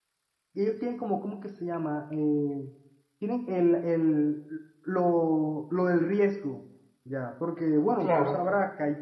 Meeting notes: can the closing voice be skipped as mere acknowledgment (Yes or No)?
Yes